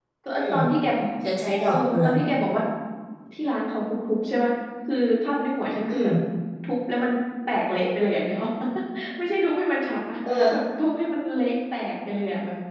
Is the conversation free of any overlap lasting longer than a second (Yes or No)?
Yes